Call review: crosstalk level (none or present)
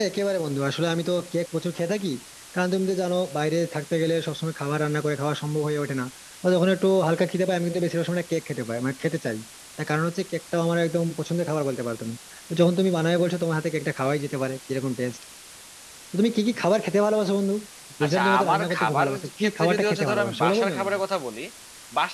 present